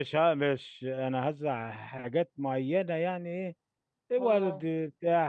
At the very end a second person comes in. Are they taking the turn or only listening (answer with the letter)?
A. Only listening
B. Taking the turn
A